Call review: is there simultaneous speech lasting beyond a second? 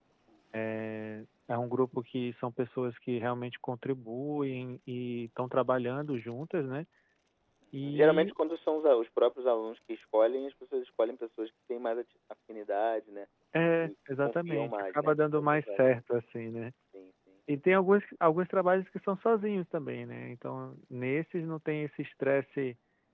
Yes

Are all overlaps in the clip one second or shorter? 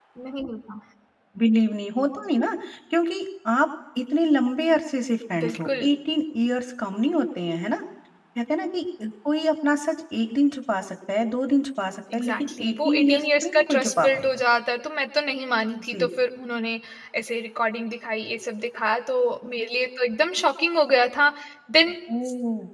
No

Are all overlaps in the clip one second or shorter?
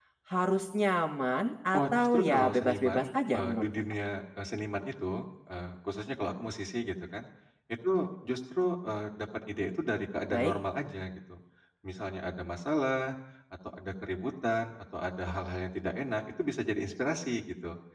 No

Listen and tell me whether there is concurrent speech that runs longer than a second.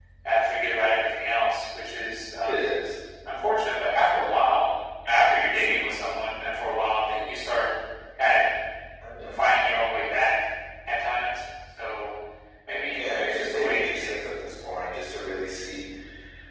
Yes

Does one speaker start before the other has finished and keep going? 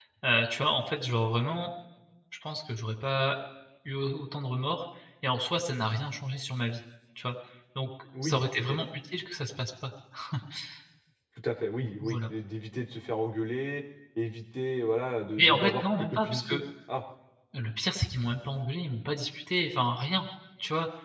Yes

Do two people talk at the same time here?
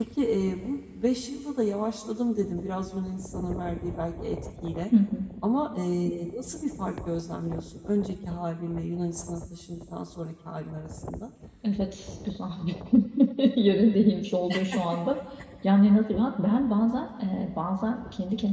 No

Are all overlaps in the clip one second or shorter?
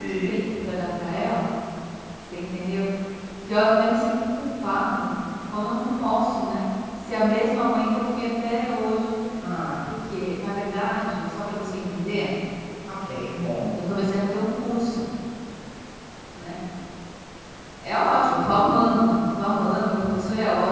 Yes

